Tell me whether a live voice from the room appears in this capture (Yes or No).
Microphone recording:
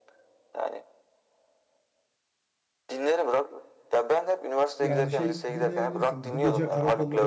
Yes